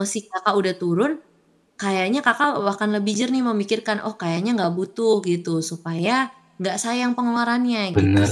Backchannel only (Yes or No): No